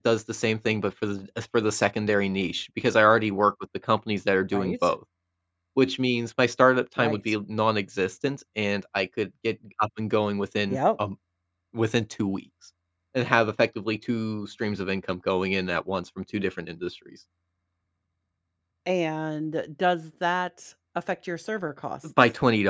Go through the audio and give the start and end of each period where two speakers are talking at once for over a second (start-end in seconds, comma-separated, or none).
none